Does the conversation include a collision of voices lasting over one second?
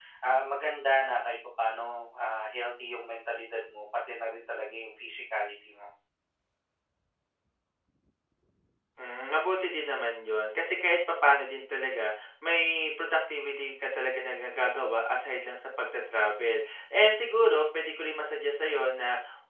No

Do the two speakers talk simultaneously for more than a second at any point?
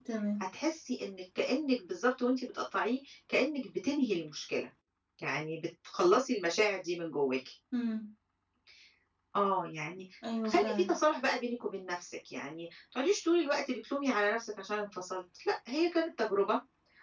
No

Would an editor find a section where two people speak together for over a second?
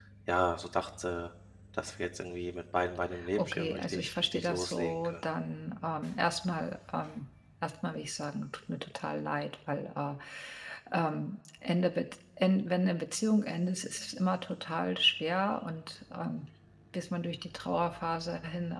Yes, from 3.2 s

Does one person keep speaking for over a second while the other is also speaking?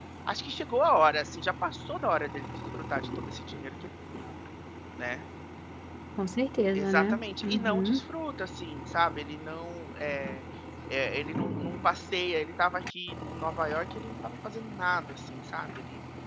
Yes, from 6.8 s

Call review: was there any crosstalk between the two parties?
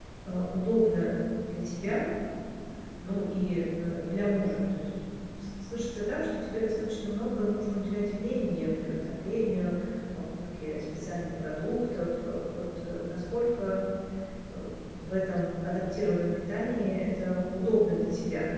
No

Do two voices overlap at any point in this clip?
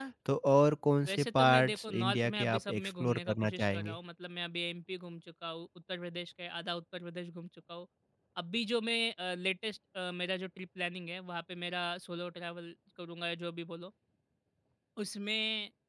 Yes, from 1.1 s

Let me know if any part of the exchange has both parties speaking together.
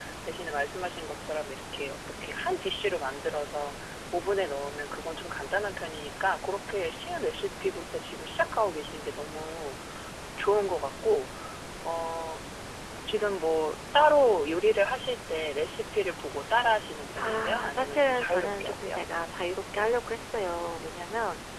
Yes, from 17.2 s

